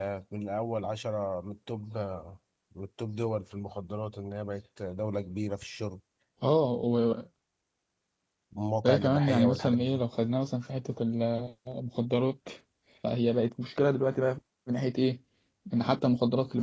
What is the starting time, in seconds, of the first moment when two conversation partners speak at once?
8.8 s

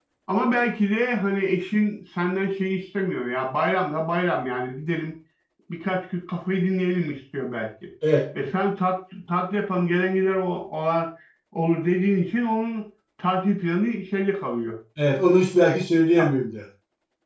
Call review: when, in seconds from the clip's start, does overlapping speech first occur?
none

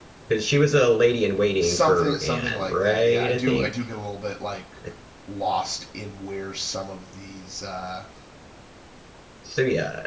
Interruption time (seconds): 1.6 s

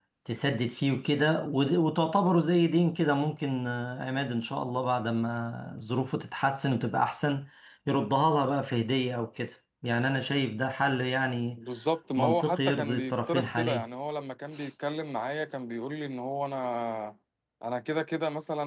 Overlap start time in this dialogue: 12.2 s

